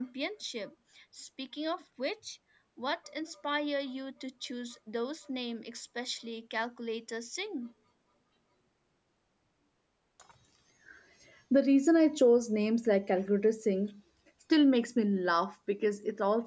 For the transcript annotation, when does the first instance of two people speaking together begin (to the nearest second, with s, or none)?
none